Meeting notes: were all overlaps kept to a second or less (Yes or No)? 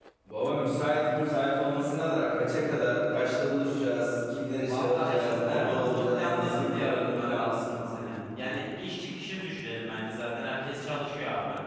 No